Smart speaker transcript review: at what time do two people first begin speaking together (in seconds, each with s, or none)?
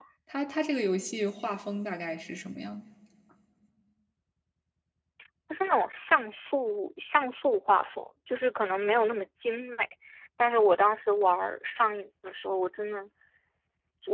none